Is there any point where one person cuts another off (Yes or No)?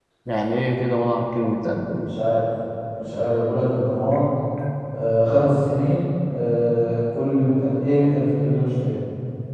No